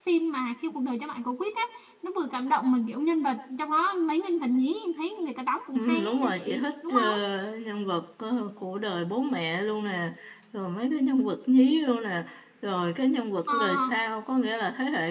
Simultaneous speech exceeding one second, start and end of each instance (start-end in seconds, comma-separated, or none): 5.8-7.0